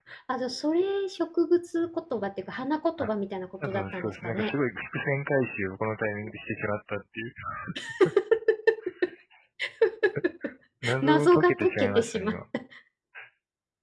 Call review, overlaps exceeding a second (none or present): present